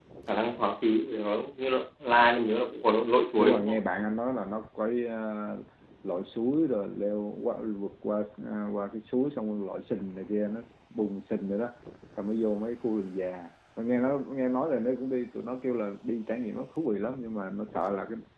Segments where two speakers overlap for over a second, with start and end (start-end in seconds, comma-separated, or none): none